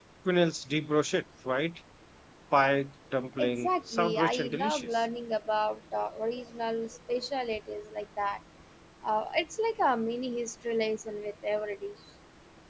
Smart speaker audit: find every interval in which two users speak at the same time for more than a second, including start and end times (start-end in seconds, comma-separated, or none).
3.4-5.0